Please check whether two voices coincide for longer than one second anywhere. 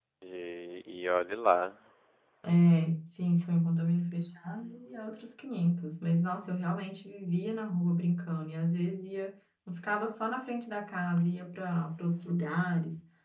No

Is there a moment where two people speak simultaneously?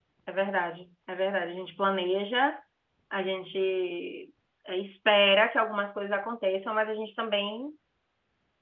No

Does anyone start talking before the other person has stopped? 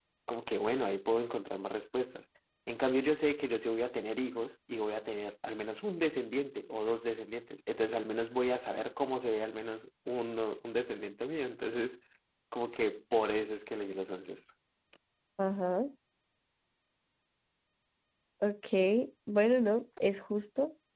No

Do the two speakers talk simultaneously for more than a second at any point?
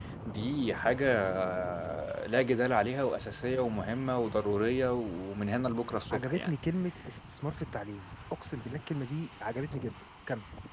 No

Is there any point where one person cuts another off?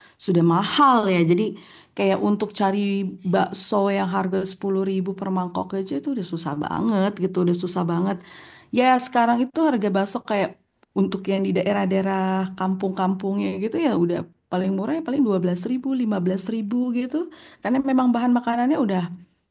No

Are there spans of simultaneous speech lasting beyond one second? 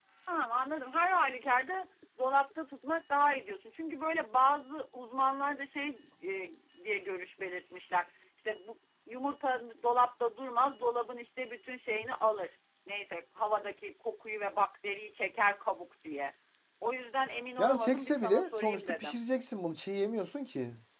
Yes, from 17.6 s

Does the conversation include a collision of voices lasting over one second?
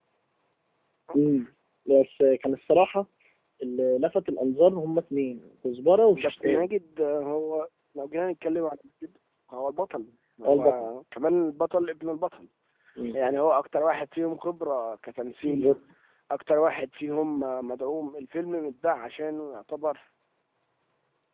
No

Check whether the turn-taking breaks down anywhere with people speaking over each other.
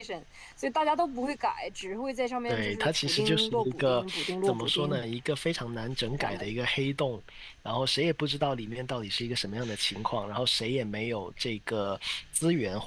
Yes, from 2.5 s

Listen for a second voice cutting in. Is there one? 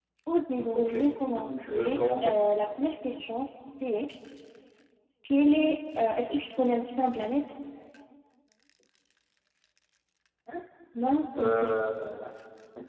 Yes, from 0.7 s

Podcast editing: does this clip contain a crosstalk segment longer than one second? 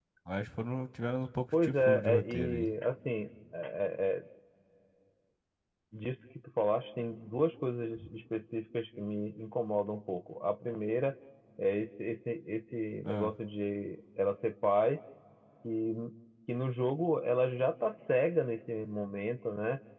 Yes, from 1.5 s

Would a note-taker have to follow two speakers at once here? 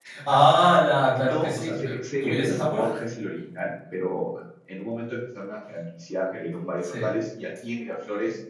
Yes, from 1.1 s

